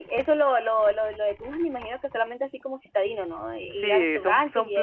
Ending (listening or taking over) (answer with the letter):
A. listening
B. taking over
B